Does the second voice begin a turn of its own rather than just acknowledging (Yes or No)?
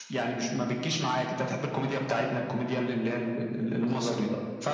Yes